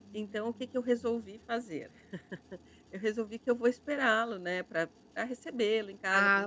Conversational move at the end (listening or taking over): listening